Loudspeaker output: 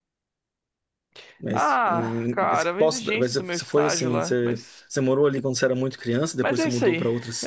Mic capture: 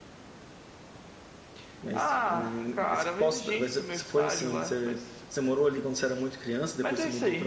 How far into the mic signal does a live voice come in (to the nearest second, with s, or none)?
none